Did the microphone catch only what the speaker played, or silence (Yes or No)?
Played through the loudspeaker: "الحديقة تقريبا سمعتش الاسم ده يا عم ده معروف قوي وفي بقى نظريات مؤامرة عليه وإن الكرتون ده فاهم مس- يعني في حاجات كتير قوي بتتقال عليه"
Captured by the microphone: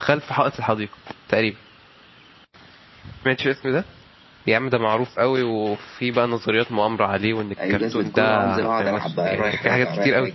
No